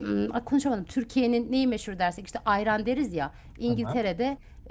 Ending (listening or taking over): listening